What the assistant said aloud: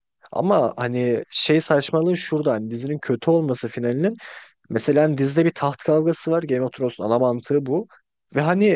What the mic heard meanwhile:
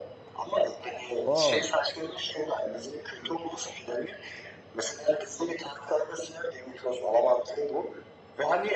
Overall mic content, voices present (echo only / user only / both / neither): both